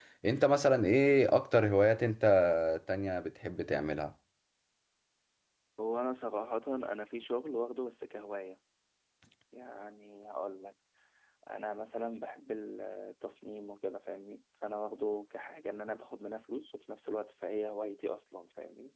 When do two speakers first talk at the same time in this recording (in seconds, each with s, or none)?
none